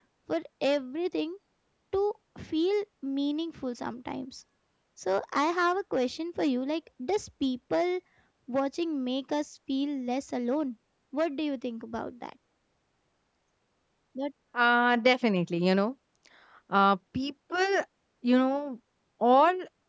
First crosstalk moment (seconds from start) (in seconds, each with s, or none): none